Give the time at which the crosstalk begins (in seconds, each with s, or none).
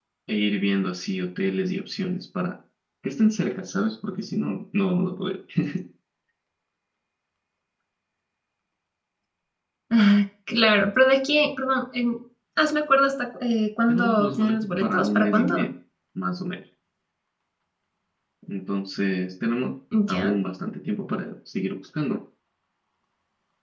13.9 s